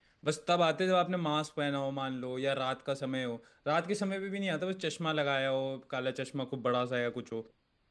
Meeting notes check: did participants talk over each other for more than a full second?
No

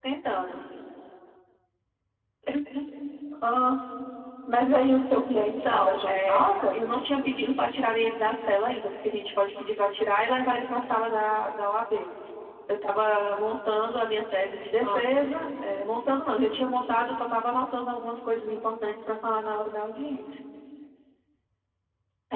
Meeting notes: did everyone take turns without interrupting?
No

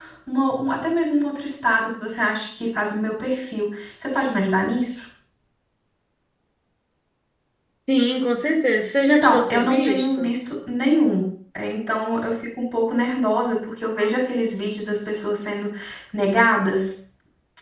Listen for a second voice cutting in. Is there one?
Yes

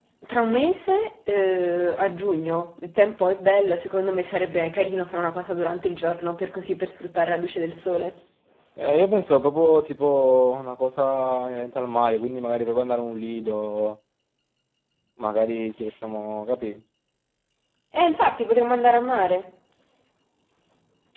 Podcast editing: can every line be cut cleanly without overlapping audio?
Yes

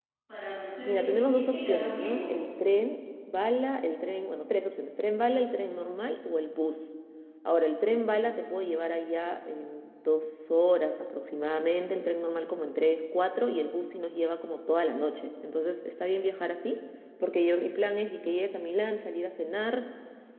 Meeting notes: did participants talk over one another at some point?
Yes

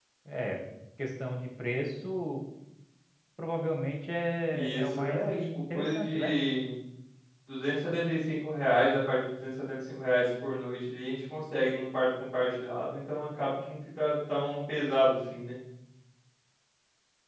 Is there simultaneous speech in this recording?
Yes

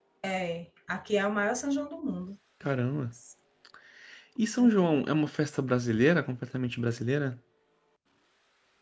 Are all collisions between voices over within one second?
Yes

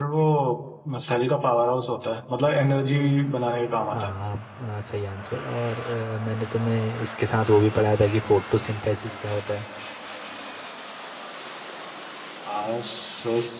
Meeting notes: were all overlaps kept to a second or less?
Yes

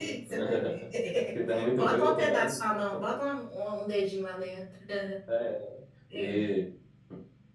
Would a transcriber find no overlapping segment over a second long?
No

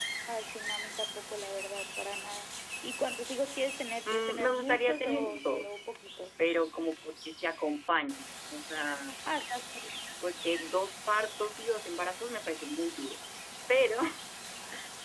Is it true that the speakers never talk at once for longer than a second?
No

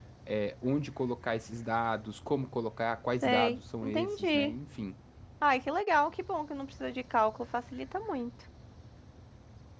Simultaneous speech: Yes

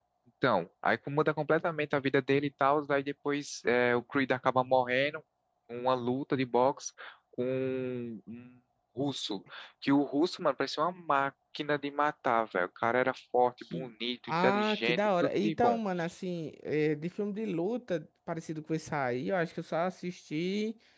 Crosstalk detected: Yes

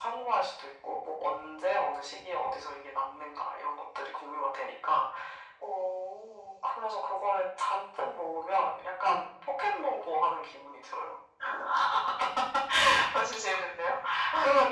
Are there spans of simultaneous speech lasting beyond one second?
No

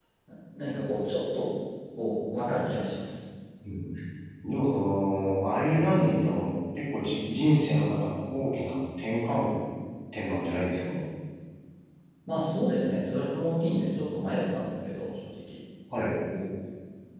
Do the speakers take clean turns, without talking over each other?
Yes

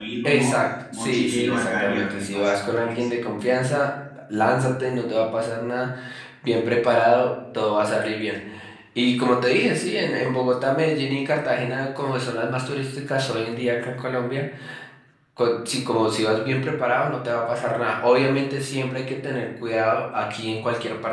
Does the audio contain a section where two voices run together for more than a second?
Yes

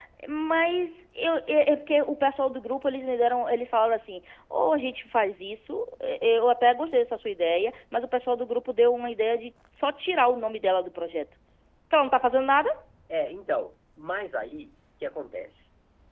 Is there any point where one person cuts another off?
No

